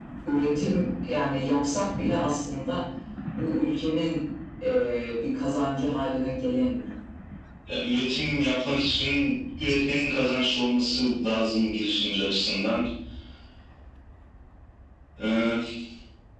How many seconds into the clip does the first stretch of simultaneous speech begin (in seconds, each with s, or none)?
none